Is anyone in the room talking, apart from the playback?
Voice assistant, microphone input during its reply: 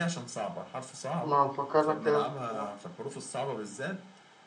Yes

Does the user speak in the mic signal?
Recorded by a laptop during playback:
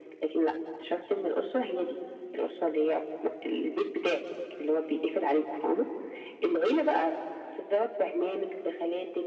No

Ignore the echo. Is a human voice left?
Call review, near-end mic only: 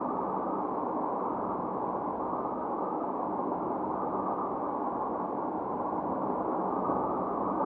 No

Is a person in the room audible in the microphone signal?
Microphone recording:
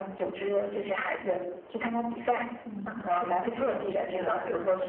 Yes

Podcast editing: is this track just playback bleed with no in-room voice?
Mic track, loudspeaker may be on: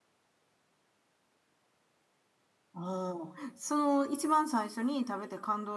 No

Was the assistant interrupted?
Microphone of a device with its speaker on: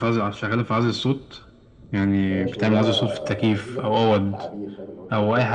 Yes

